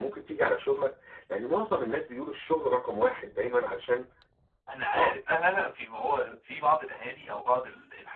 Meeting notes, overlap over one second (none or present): none